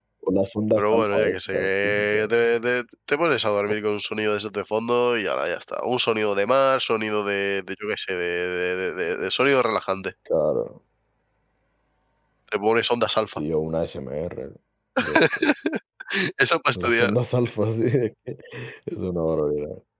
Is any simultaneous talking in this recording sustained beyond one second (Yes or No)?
Yes